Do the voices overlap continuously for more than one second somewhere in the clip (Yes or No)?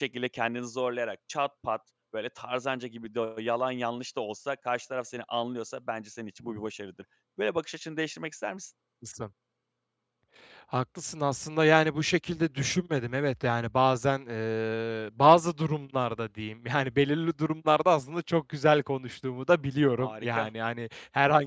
No